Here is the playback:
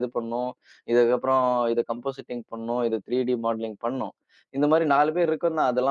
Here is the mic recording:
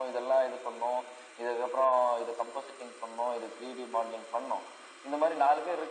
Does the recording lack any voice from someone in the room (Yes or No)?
Yes